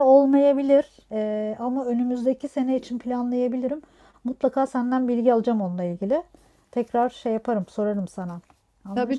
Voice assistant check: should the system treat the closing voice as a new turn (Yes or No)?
Yes